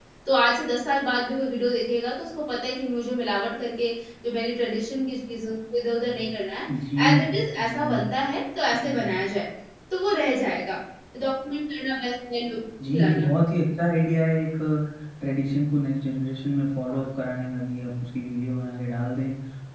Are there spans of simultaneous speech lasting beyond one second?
No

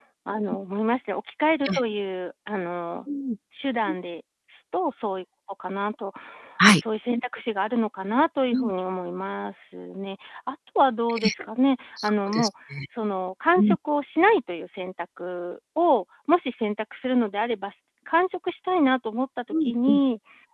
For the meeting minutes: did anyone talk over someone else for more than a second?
No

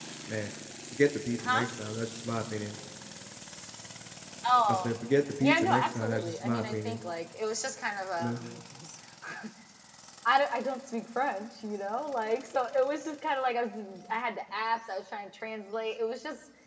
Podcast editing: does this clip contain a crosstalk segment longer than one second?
Yes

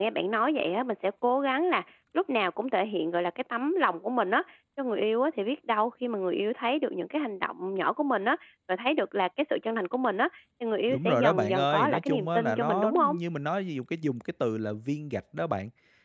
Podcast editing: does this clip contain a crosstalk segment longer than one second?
Yes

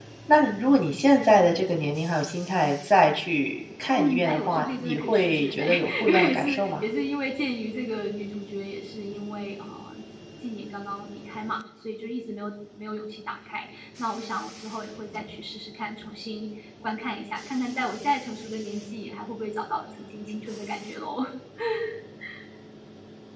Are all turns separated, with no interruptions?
No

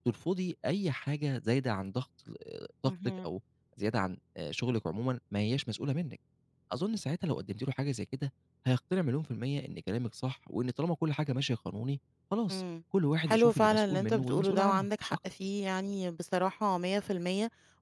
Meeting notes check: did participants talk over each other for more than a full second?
Yes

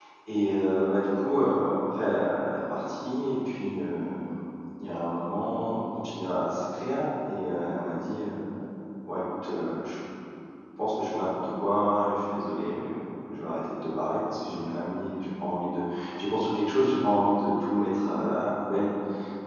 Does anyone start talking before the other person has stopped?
No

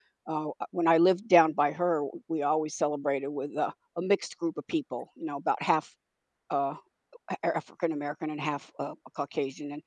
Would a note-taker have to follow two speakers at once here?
No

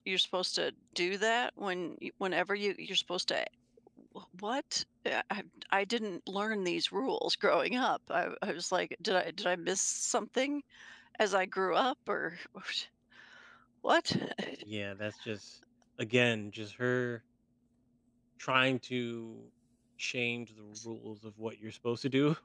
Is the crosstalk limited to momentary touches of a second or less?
Yes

